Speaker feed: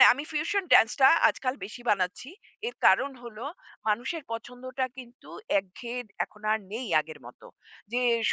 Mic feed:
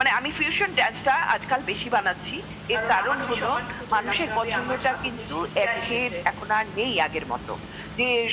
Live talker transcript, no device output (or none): কারণ আমার ওই সম্মানটুকু ধরে রাখতে হবে। আমার সাথে যে শিল্পীরা এসেছে